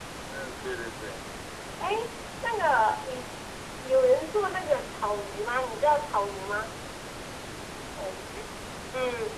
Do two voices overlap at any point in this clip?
No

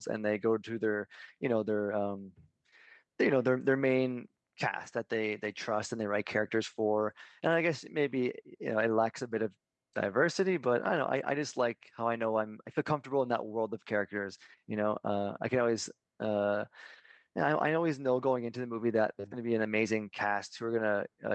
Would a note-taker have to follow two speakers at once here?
No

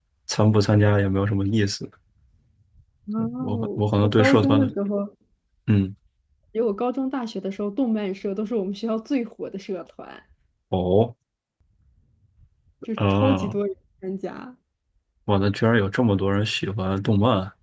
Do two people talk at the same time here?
Yes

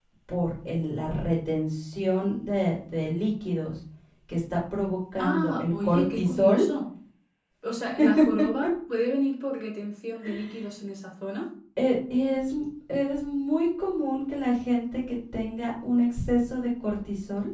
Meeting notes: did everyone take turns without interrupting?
No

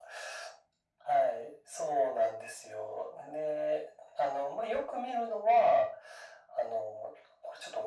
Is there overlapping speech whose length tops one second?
No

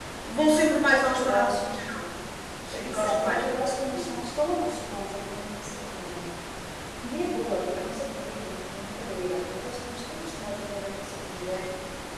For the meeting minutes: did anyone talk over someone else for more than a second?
Yes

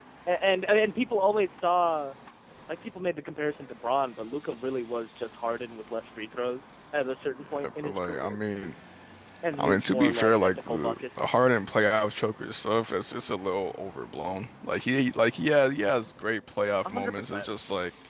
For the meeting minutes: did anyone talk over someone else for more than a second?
Yes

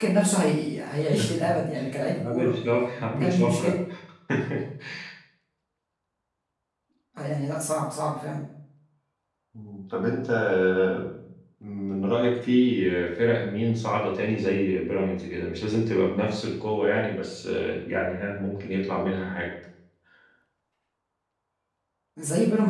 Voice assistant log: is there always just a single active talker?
No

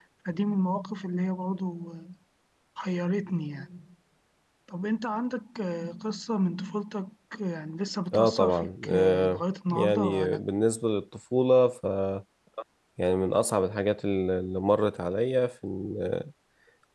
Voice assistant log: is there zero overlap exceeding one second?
No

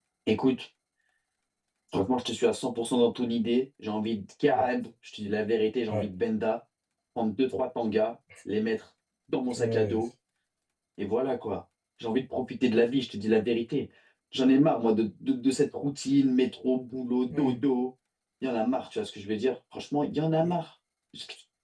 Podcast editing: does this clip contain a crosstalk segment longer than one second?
No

